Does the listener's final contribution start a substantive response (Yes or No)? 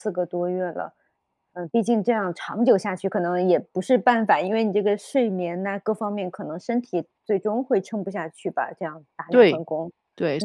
Yes